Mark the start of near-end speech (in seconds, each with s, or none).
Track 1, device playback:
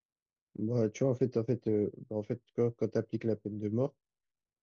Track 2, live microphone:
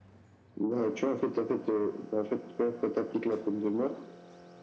none